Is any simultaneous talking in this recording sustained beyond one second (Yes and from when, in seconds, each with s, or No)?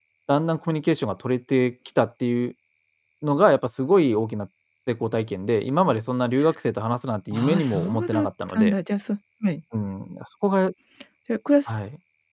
Yes, from 7.3 s